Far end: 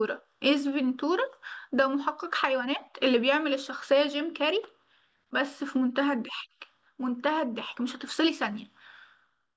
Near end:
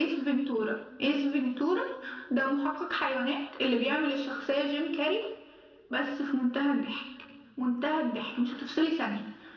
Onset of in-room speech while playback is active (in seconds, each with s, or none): none